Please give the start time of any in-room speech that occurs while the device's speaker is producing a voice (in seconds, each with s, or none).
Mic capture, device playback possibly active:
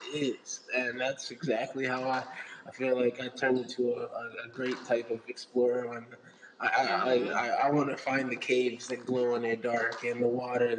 6.8 s